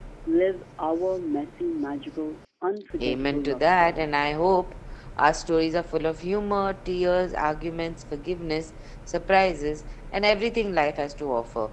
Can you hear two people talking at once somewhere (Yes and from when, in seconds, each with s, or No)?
Yes, from 3.0 s